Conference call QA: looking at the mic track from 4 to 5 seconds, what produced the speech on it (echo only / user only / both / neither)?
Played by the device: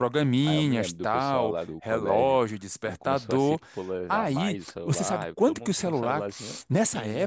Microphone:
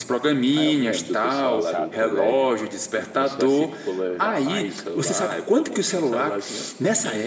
echo only